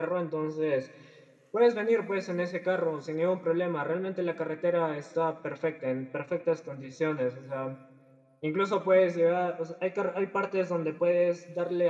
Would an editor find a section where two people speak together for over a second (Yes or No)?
No